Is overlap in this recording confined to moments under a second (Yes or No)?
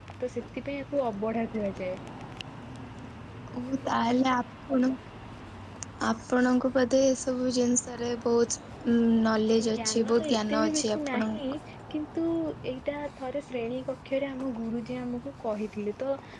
No